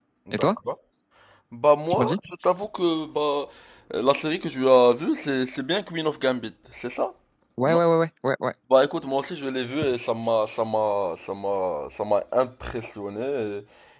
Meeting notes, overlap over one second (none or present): none